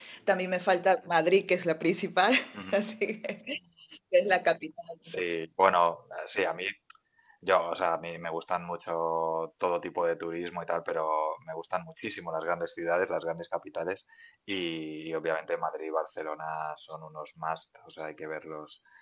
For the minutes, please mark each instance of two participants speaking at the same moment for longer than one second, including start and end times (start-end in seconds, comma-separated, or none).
none